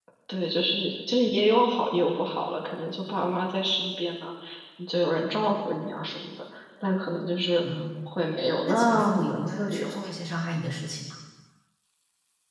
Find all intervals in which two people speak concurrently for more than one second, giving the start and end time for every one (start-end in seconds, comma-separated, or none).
8.7-10.1